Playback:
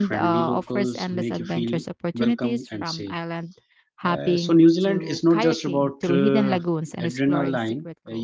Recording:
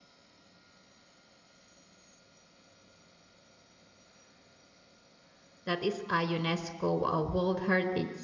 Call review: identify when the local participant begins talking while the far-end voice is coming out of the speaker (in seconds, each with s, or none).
5.6 s